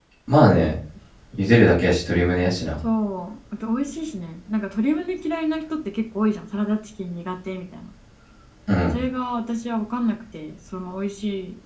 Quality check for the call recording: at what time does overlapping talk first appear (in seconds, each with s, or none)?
none